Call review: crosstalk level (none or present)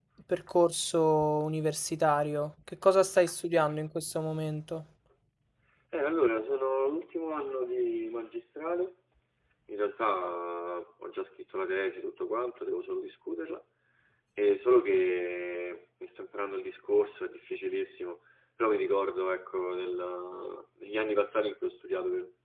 none